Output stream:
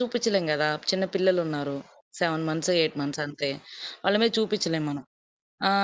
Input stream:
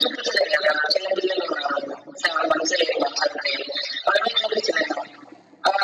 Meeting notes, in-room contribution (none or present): none